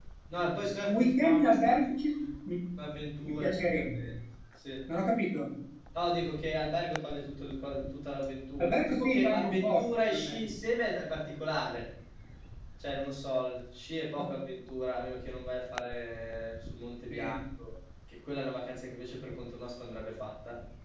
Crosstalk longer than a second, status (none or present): present